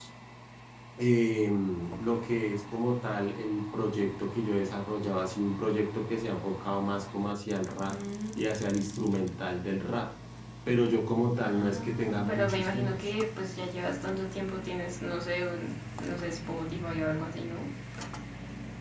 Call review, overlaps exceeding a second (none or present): present